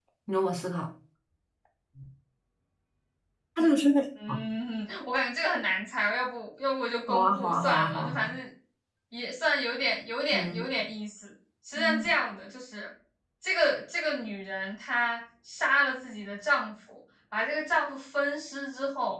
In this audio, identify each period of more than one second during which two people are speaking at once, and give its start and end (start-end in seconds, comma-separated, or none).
7.1-8.3